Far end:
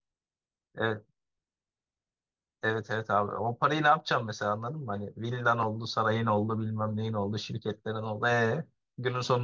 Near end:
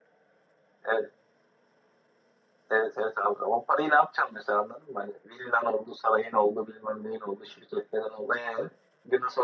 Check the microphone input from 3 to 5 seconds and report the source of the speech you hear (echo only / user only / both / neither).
echo only